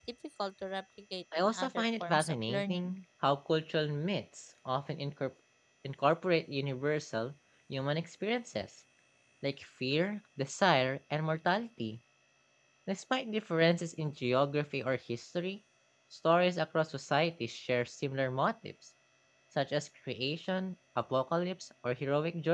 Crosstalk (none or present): present